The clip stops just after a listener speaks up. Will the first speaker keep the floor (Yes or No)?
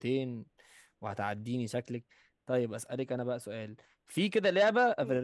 Yes